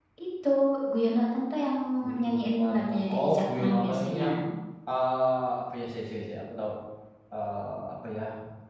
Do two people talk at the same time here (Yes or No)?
Yes